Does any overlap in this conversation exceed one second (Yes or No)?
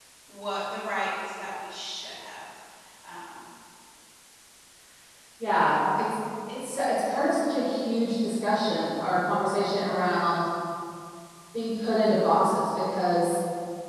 No